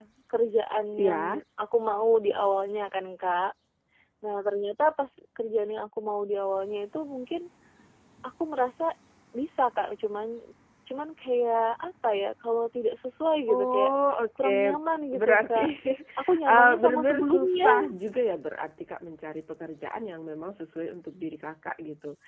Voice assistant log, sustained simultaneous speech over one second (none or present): present